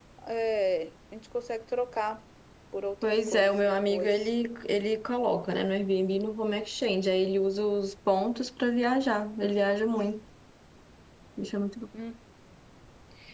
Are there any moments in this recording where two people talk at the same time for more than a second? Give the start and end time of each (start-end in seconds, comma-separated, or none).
3.0-4.3